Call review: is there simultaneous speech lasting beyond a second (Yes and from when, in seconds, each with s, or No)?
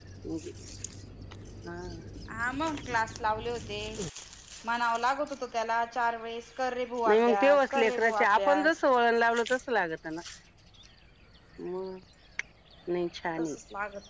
Yes, from 7.0 s